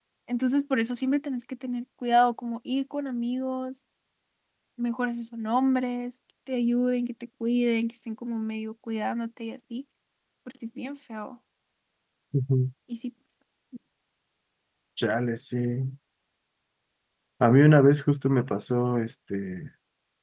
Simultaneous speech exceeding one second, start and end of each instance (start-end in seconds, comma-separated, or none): none